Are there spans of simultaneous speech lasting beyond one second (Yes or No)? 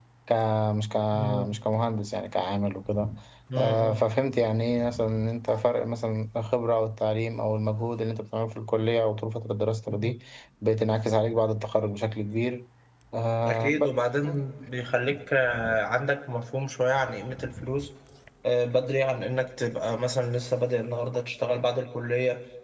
No